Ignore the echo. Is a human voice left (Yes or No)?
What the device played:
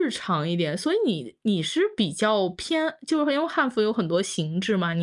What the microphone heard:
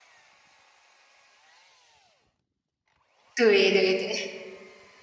Yes